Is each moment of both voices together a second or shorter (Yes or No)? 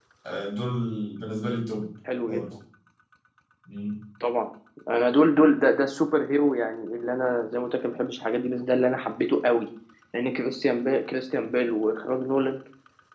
Yes